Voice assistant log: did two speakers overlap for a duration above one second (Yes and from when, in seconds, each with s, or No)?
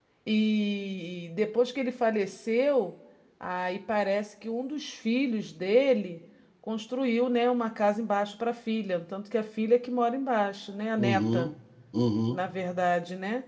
No